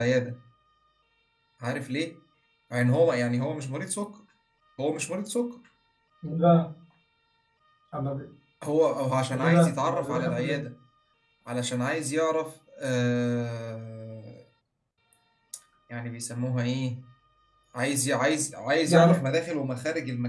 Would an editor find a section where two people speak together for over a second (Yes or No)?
Yes